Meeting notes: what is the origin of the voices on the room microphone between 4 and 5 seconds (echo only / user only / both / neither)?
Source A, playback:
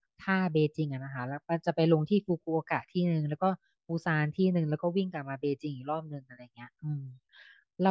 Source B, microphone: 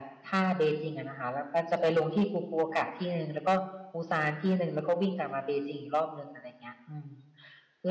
echo only